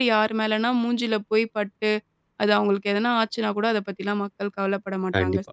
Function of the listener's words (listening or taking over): taking over